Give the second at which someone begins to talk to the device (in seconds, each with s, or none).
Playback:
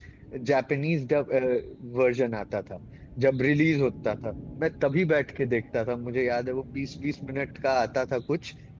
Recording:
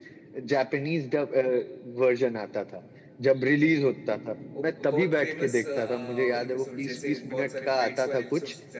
4.5 s